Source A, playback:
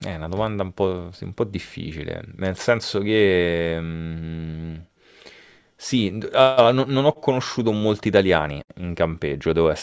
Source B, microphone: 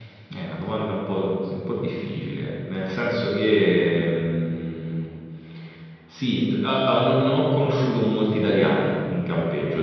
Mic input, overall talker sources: echo only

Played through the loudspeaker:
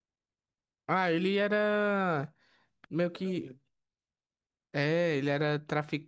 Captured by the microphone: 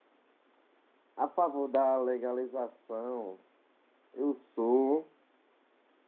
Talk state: user only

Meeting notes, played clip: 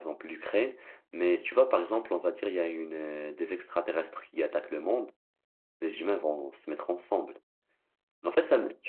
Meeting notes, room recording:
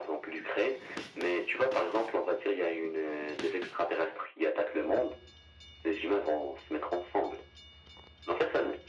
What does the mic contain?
echo only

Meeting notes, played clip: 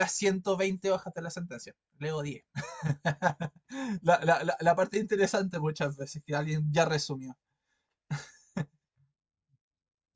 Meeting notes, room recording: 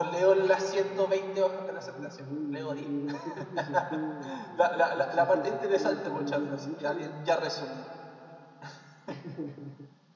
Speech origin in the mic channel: both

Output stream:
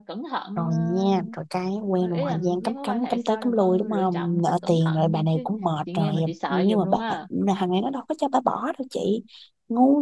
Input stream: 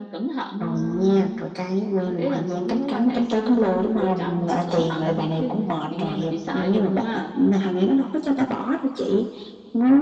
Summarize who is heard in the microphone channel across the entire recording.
echo only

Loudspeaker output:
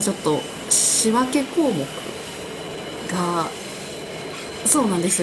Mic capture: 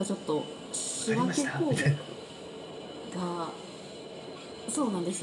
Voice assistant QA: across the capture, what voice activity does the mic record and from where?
both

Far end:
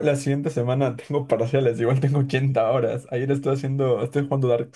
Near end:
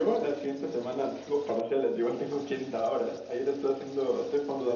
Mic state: echo only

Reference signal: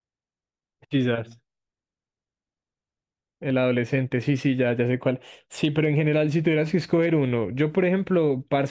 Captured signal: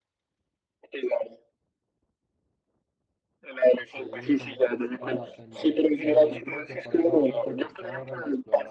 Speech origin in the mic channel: both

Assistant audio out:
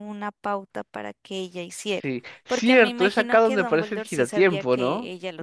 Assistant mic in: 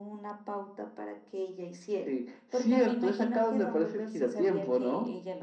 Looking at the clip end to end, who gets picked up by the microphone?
echo only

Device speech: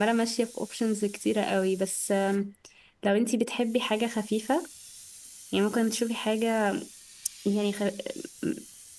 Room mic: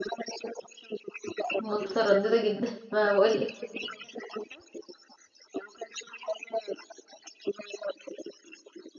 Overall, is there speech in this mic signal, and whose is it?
both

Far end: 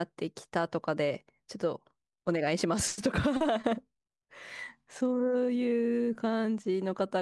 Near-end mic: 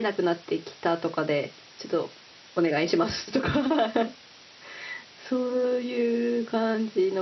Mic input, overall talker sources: echo only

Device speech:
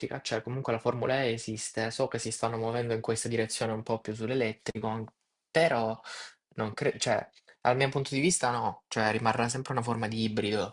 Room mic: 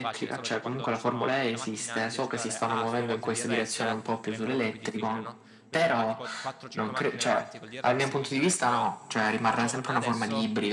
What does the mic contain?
both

